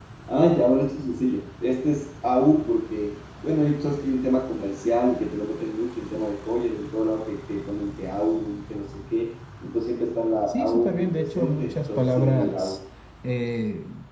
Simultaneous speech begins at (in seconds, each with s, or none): 10.5 s